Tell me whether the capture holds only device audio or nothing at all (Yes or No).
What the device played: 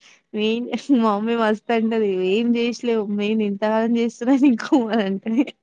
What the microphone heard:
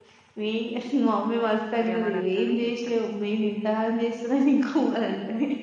No